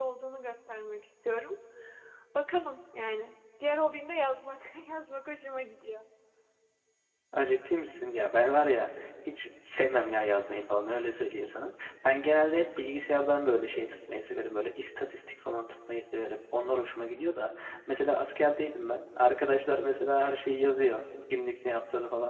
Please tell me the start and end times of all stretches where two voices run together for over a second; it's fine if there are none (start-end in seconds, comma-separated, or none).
none